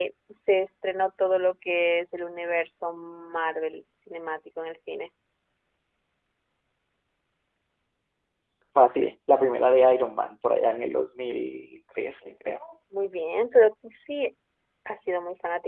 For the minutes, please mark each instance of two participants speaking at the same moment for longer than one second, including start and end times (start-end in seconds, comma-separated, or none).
none